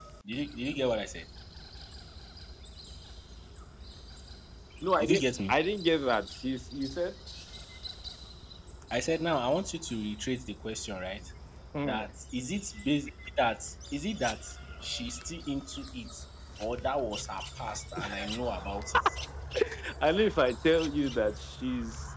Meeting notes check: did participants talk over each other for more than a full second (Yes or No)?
No